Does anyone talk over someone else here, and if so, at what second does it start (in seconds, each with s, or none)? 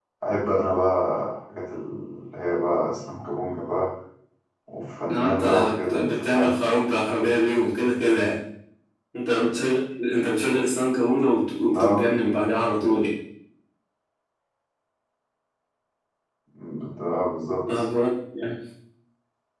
5.1 s